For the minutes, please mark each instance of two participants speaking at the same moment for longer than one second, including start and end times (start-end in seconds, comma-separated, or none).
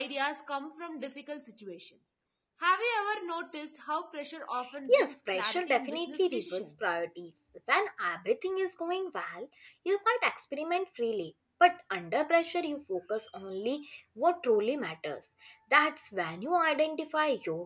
4.9-6.7